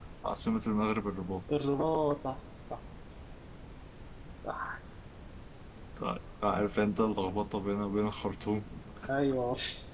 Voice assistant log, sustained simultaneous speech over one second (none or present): none